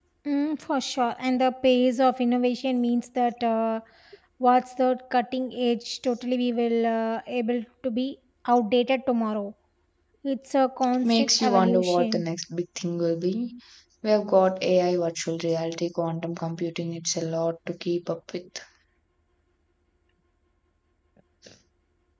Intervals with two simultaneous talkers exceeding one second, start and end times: 11.0-12.2

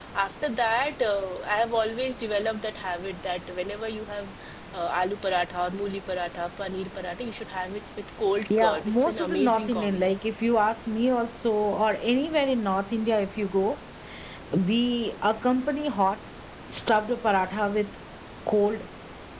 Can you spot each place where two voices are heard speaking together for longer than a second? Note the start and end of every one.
8.6-10.1

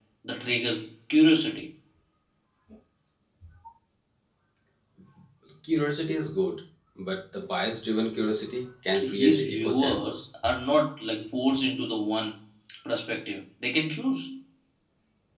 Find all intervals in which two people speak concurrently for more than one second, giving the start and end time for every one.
8.9-10.2

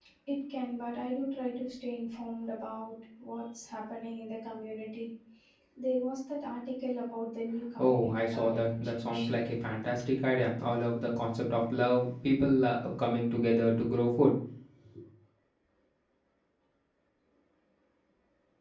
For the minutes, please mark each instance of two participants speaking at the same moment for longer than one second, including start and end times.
7.8-9.5

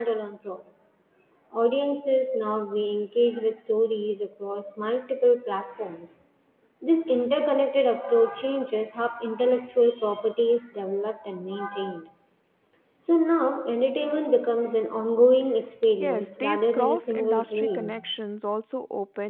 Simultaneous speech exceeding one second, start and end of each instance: 16.0-18.0

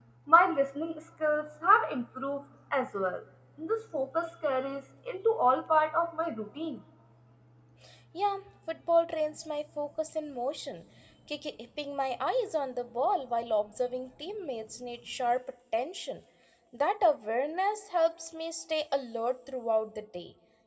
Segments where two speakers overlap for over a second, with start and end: none

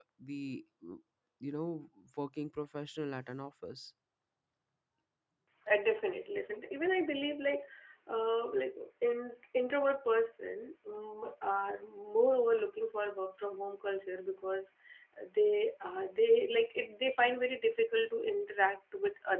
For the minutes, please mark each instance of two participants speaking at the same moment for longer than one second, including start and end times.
none

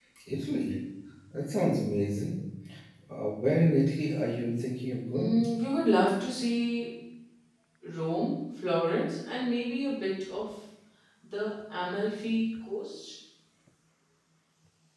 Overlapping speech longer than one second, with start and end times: none

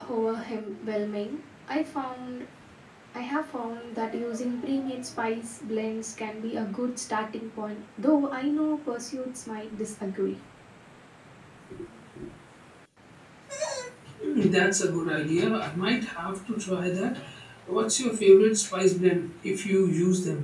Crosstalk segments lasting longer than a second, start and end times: none

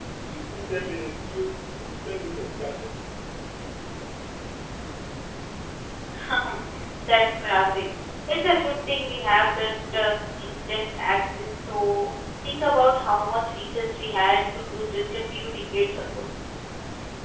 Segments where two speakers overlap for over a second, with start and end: none

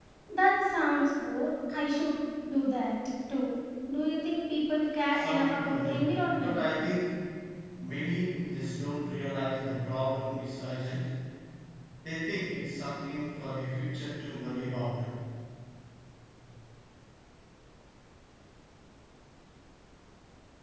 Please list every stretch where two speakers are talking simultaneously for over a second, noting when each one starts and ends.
5.1-6.6

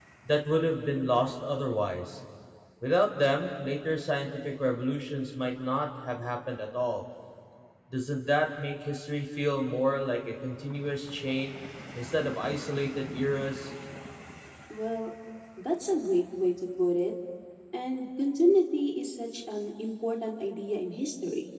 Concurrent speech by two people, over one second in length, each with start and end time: none

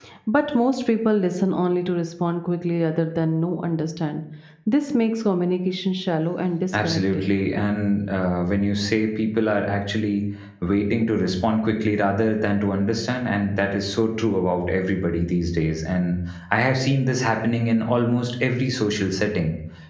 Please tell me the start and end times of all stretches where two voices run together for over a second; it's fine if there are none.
none

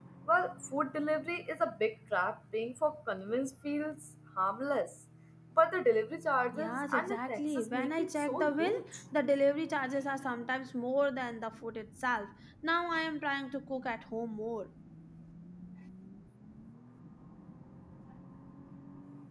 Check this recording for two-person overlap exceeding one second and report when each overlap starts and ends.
6.5-8.8

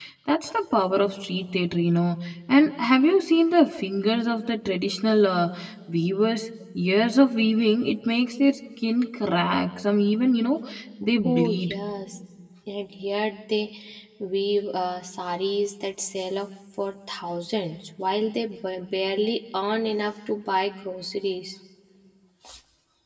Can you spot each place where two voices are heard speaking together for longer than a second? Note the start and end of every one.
none

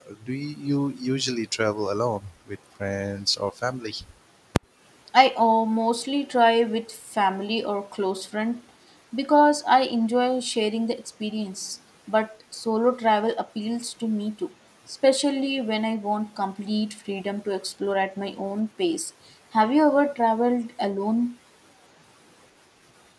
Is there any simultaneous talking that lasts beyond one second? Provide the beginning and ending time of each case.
none

